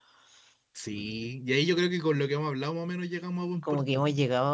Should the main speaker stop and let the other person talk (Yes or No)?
Yes